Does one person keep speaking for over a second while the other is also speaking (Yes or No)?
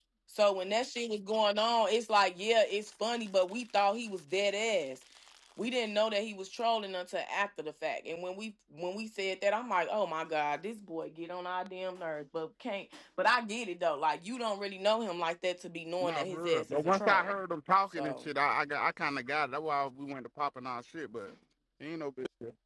Yes